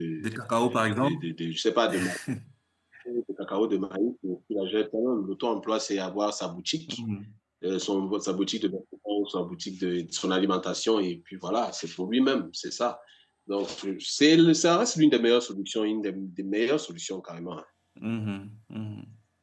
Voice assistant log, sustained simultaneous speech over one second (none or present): none